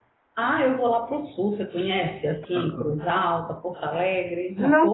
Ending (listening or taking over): taking over